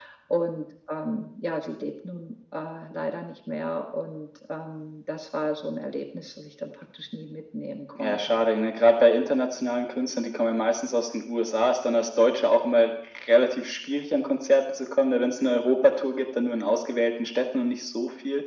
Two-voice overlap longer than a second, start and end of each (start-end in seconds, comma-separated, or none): none